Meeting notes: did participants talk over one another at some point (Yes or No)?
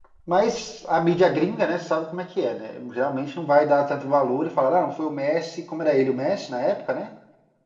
No